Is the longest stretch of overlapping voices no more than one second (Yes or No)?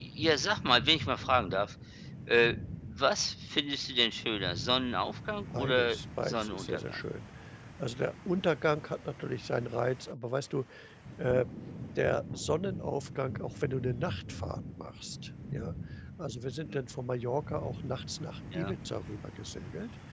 No